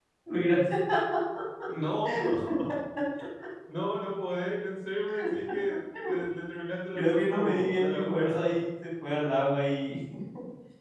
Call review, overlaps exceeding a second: present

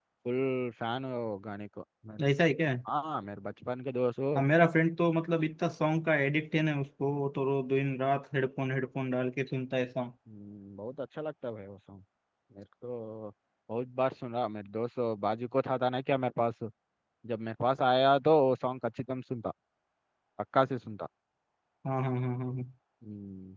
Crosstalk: none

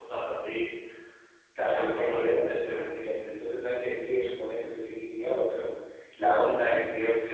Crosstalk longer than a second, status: present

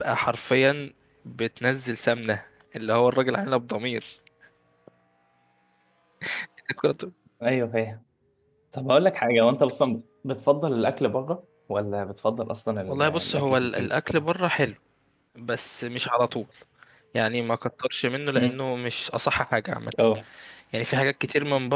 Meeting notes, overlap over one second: present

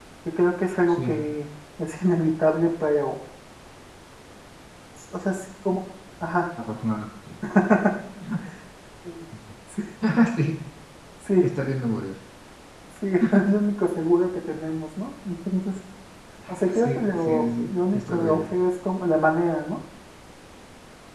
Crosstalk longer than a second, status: present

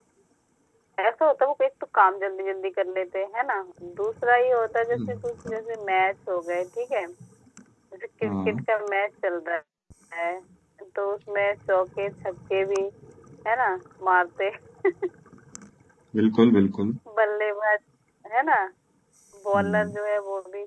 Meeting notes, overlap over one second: none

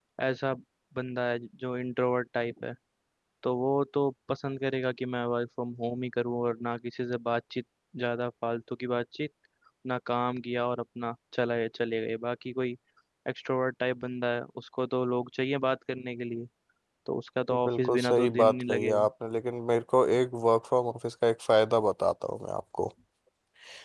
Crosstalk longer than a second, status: present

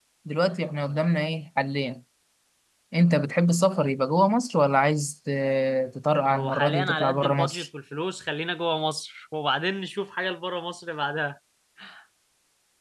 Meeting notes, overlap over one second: present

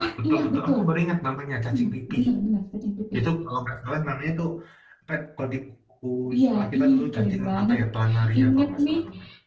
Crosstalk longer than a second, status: present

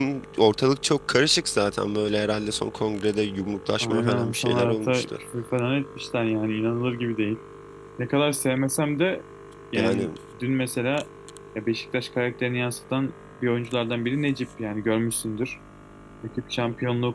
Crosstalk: present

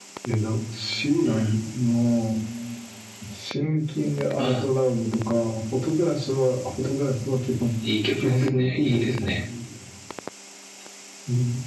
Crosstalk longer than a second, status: present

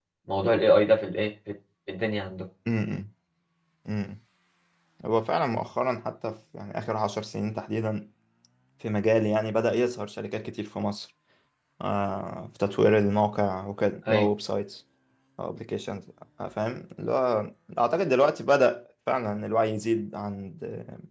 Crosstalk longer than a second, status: none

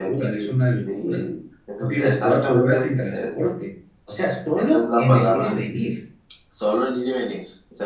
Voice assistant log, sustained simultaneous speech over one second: present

